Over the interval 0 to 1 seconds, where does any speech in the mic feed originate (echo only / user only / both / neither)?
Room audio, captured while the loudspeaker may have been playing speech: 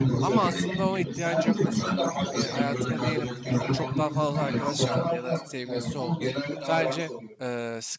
both